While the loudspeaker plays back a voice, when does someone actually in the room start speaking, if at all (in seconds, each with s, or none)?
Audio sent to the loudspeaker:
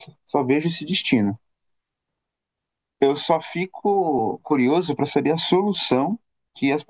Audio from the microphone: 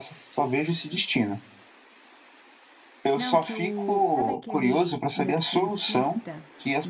3.1 s